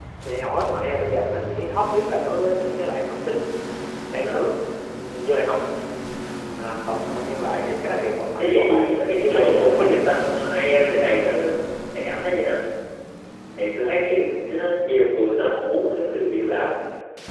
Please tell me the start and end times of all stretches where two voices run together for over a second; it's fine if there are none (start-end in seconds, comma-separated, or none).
8.4-10.0